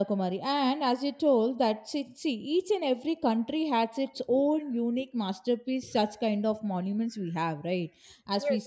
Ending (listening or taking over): listening